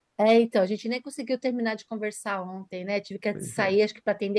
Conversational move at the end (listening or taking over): listening